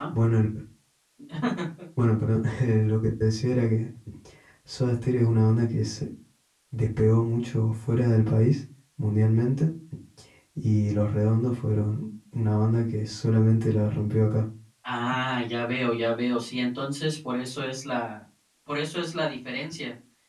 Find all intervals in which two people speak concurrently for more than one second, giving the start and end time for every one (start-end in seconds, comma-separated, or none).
none